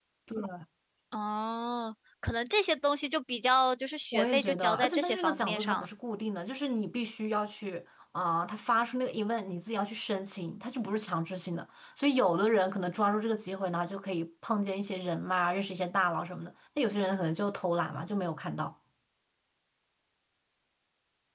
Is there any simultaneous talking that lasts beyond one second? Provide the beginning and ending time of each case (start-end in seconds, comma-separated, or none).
4.1-5.8